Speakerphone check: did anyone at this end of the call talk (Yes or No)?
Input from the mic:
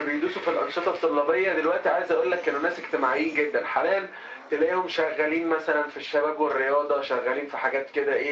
No